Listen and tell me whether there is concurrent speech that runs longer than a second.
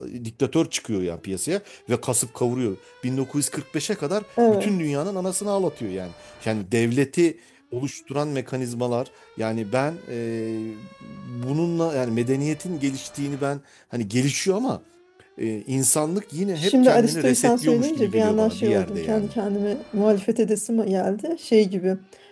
Yes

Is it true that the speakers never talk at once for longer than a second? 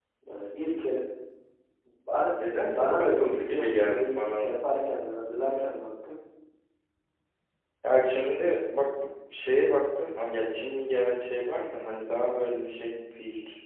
No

